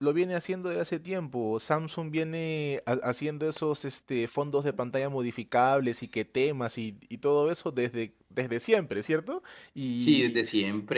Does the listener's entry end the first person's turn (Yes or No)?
Yes